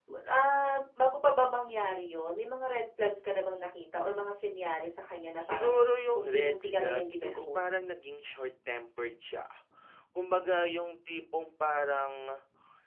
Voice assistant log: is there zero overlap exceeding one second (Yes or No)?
No